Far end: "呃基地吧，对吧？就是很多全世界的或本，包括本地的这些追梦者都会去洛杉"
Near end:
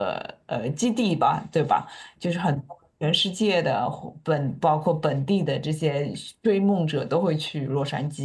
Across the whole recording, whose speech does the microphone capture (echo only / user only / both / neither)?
echo only